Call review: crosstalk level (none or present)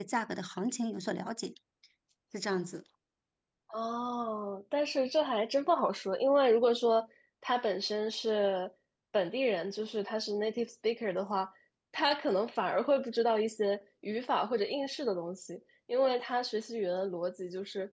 none